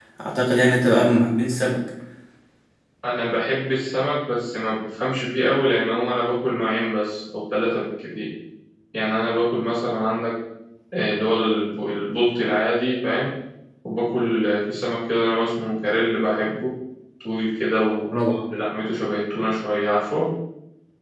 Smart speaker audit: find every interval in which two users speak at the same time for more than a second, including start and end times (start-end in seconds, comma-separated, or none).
none